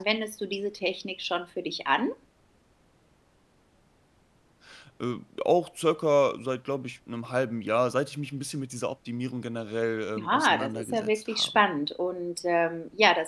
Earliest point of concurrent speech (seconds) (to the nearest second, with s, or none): 10 s